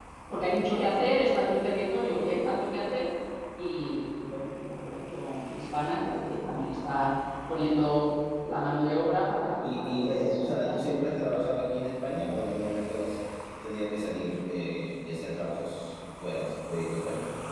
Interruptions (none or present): present